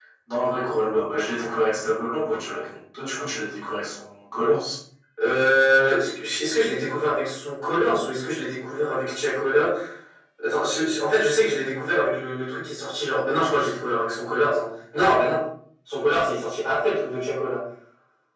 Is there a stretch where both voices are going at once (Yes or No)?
No